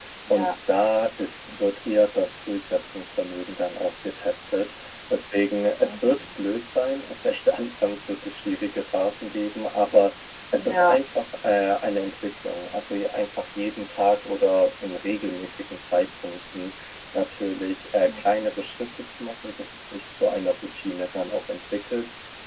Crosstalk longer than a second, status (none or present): none